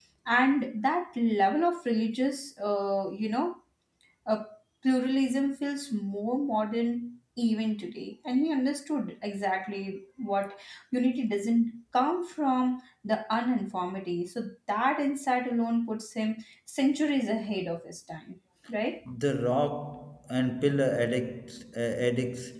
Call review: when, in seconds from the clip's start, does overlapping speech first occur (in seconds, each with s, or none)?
none